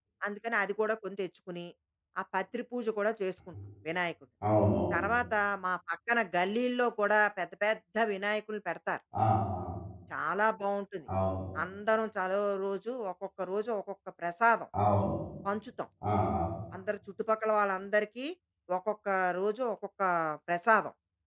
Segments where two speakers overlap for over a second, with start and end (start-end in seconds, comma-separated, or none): none